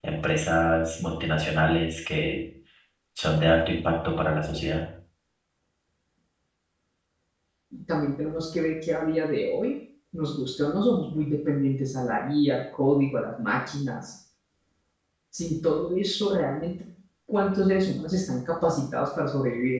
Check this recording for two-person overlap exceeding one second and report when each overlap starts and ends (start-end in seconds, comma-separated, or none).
none